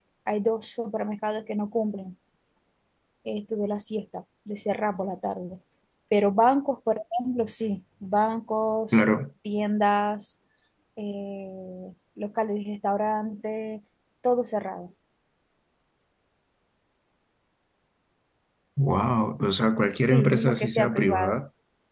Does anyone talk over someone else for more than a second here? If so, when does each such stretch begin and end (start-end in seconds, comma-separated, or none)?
20.0-21.4